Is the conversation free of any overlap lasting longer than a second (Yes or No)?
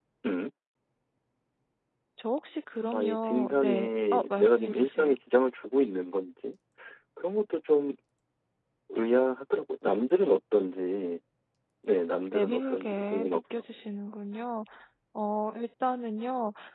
No